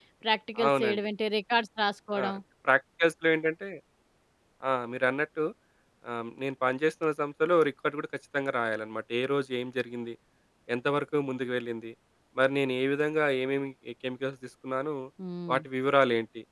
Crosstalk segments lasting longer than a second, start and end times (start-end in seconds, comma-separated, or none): none